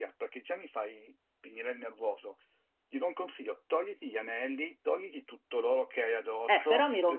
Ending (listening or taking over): taking over